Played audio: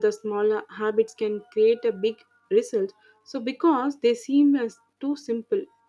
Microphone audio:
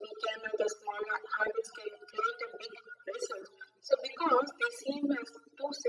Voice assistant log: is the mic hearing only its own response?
Yes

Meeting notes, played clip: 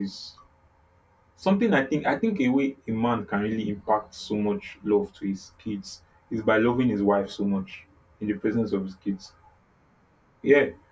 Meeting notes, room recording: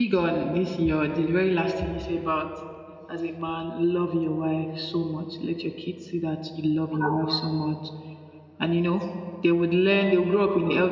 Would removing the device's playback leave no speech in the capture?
No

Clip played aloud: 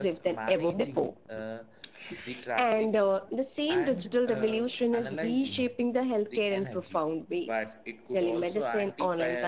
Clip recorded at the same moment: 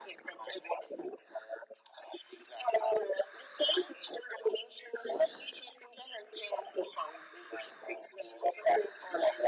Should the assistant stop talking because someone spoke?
No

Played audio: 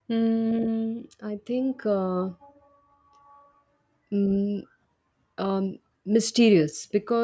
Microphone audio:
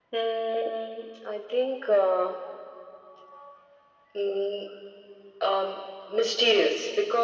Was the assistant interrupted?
No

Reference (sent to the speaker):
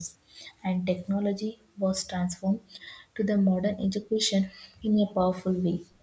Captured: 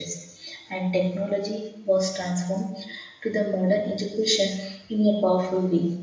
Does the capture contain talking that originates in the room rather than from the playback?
No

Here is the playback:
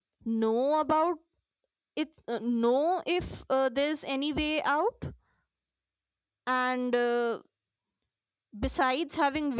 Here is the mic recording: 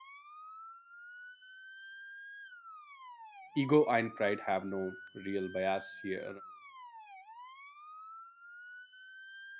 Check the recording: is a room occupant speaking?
Yes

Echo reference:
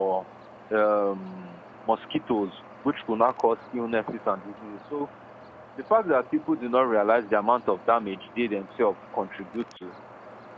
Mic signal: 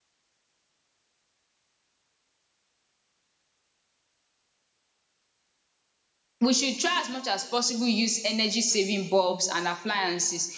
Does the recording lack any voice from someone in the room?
No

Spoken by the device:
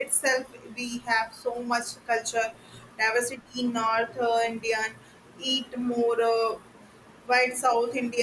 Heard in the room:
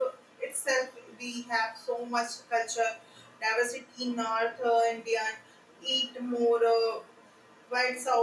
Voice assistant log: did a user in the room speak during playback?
No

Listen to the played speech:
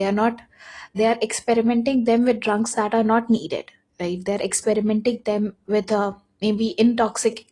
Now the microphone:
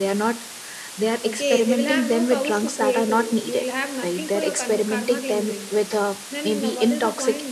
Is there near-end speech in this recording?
Yes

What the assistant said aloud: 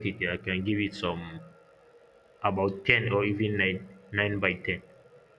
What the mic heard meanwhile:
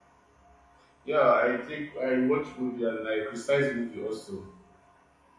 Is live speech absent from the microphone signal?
No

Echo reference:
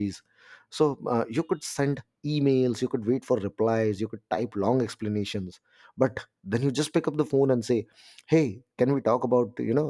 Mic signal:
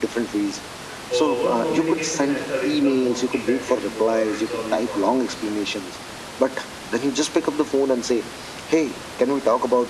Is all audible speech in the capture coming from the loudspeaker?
No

